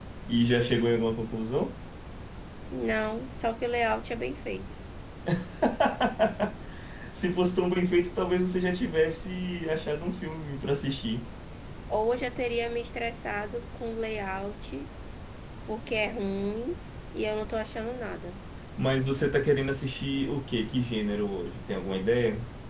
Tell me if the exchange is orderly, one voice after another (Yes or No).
Yes